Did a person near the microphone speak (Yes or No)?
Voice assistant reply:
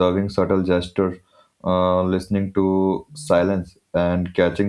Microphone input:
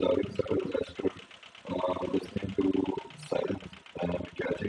No